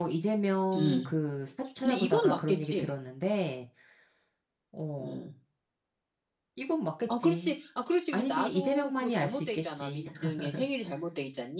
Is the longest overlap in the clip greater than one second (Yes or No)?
Yes